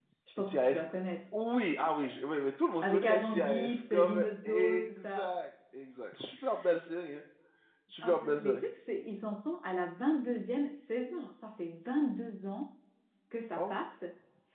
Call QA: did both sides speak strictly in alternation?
No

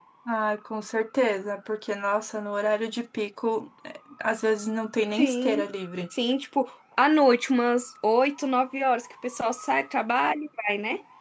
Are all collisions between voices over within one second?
Yes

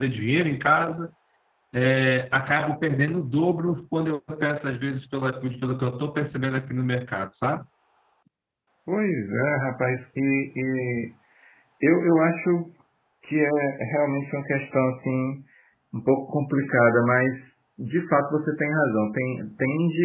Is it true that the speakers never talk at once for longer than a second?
Yes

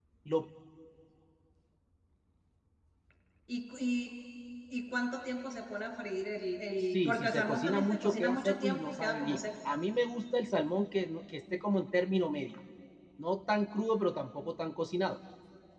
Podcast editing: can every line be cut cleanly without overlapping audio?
No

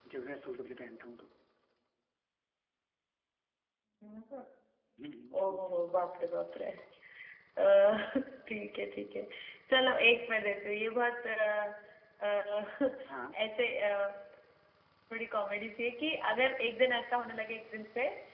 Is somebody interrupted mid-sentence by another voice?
No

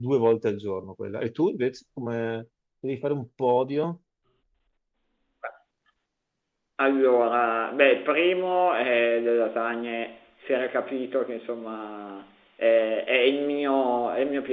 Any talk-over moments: No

